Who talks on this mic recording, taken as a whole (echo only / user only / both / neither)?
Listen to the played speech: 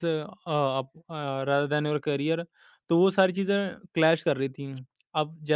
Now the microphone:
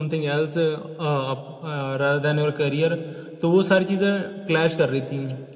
echo only